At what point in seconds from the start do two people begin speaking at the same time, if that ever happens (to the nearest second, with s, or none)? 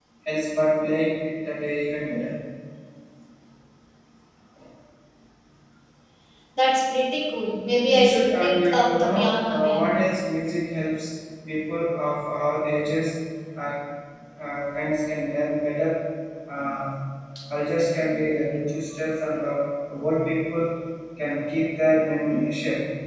8 s